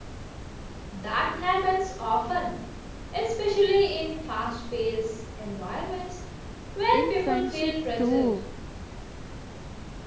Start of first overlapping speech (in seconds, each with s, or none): 6.9 s